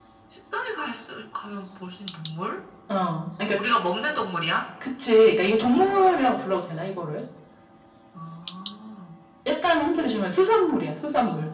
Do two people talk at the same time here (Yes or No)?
No